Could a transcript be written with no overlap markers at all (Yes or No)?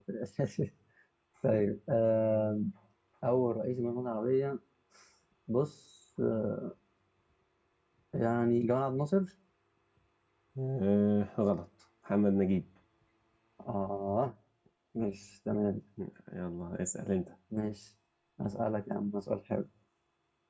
Yes